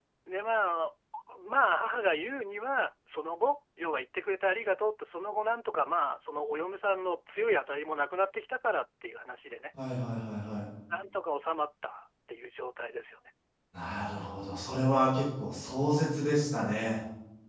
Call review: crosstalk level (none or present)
none